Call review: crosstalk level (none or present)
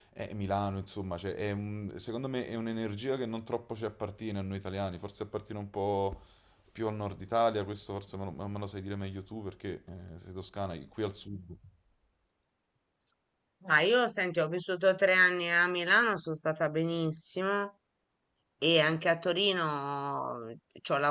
none